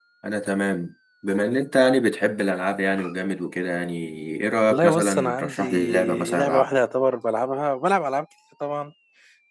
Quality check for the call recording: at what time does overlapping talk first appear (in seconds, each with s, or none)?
4.7 s